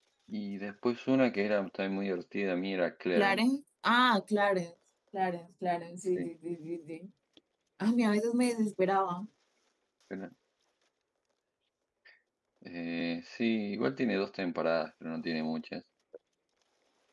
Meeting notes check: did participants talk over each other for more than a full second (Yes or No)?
No